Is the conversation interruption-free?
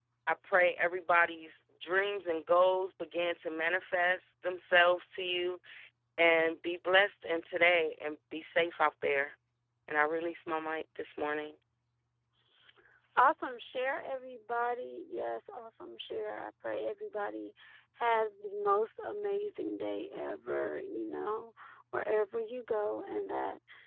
Yes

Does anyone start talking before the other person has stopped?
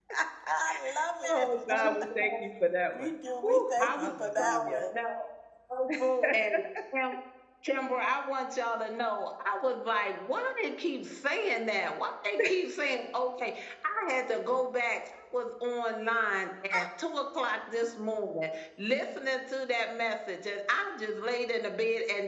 Yes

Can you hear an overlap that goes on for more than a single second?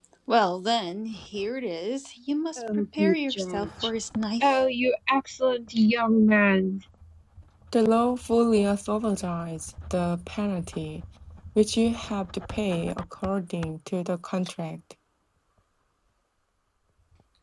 Yes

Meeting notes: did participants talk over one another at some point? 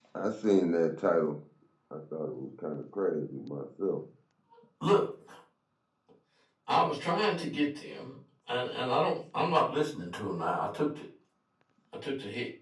No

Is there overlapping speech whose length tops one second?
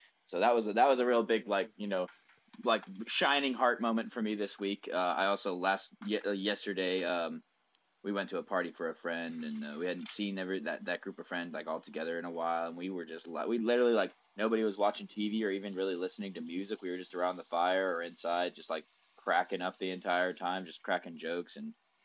No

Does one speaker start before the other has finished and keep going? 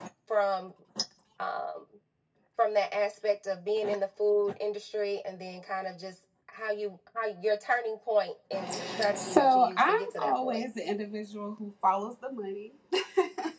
Yes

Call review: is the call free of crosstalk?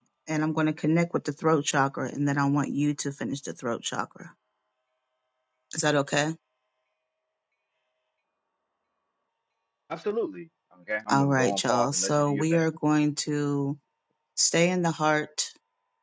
No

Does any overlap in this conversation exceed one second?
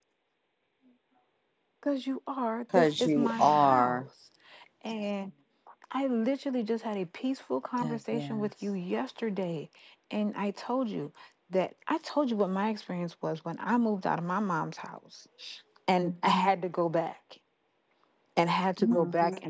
Yes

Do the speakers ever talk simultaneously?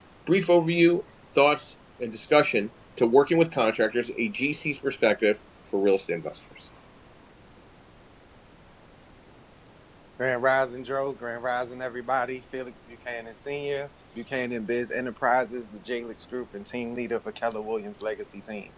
No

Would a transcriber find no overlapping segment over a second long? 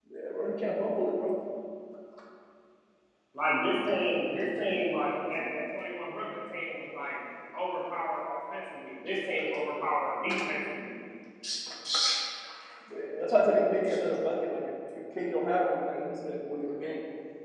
Yes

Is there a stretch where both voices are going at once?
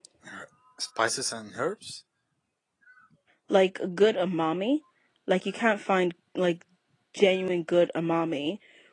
No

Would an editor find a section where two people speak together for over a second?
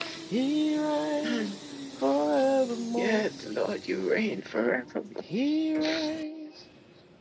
No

